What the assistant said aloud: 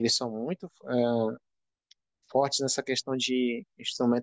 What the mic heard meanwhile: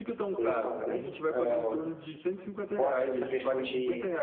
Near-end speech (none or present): present